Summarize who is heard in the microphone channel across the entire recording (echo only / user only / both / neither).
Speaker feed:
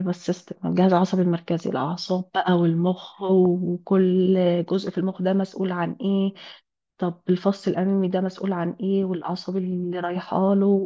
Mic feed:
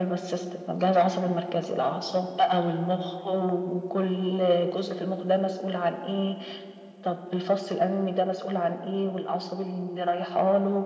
echo only